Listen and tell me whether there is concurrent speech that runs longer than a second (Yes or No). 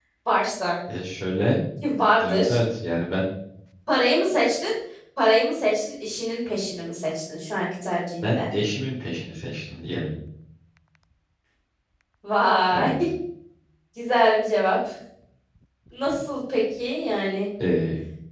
No